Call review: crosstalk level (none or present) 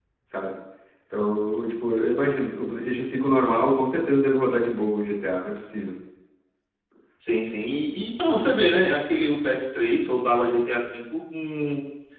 none